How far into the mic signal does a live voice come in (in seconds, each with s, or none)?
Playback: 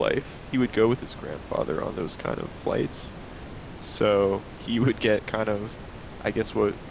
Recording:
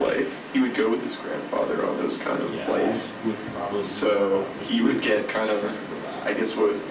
2.4 s